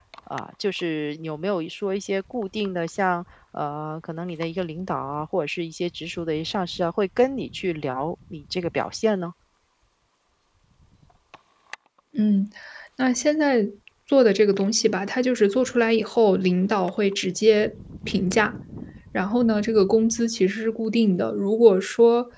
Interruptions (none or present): none